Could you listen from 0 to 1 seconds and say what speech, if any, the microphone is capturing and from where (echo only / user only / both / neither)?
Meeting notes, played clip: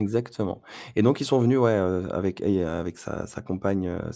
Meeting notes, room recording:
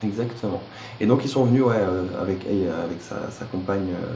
echo only